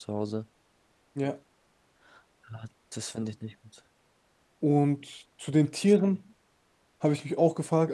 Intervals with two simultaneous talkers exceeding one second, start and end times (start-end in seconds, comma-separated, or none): none